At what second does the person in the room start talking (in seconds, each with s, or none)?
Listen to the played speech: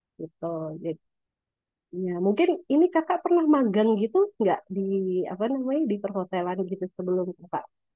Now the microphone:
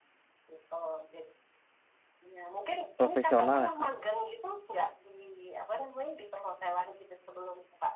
3.0 s